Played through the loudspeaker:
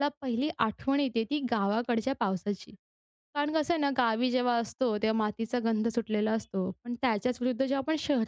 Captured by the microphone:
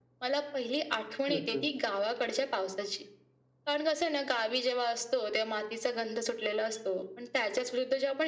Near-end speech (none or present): present